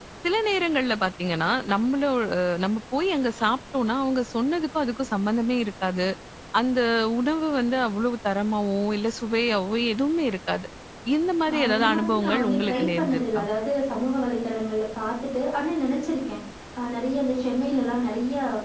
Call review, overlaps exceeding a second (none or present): present